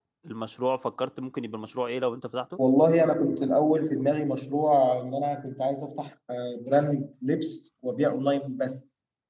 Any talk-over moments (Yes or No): No